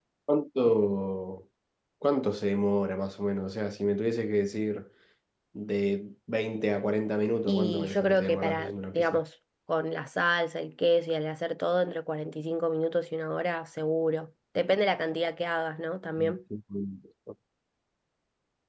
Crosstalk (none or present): present